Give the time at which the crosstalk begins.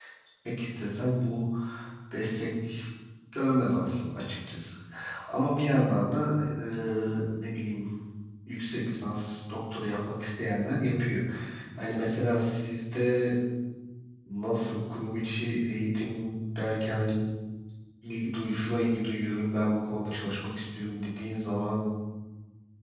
none

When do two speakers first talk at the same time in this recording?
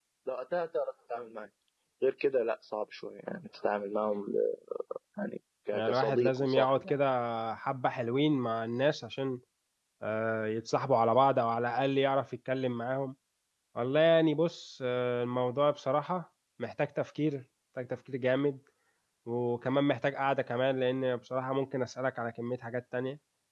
5.7 s

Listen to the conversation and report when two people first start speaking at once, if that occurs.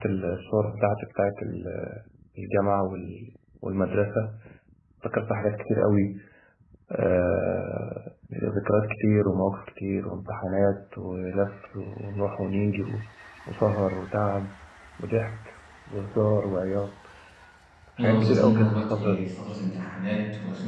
18.0 s

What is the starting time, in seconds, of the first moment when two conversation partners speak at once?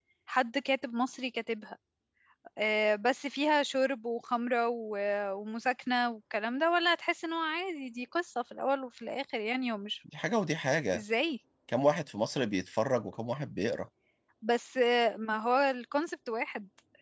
none

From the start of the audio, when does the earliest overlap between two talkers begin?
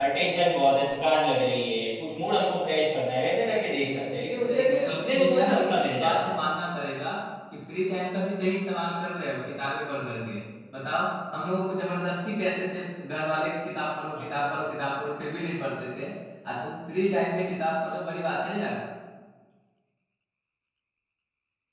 3.8 s

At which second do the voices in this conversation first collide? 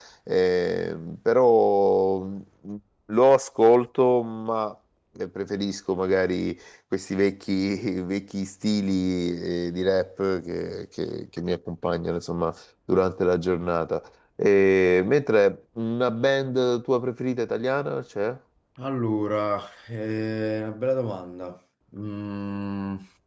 none

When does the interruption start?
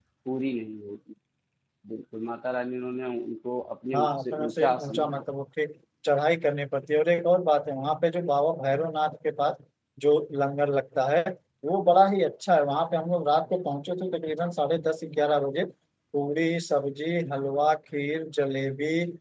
3.9 s

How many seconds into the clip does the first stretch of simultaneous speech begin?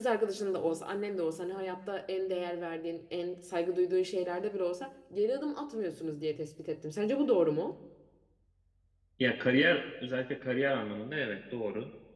none

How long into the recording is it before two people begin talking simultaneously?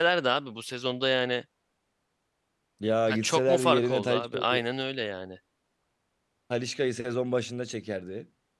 3.1 s

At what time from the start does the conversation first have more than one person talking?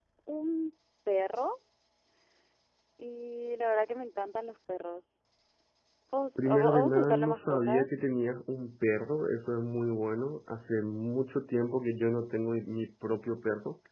6.4 s

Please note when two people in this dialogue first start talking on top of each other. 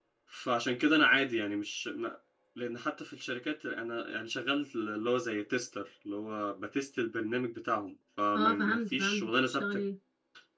8.3 s

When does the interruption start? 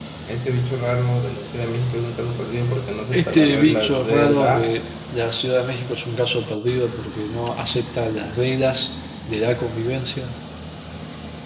3.1 s

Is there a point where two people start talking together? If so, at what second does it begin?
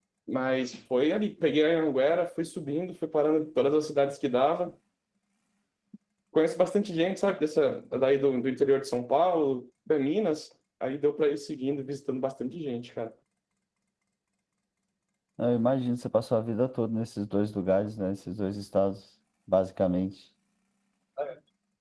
none

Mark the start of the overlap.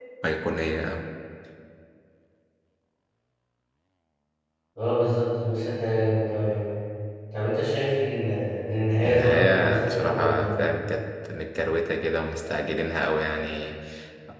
9.0 s

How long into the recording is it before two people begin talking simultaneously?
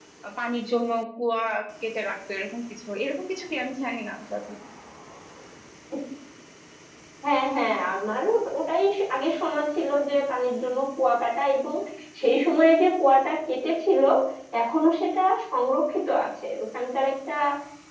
none

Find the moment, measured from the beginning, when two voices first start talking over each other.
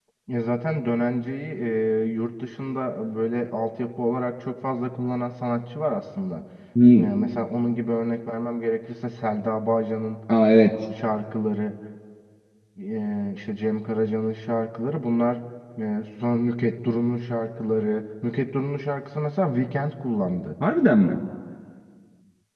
none

